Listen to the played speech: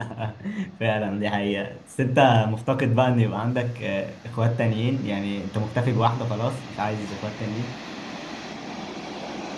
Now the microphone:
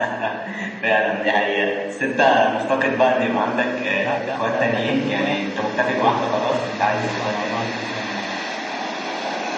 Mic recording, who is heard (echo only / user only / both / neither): both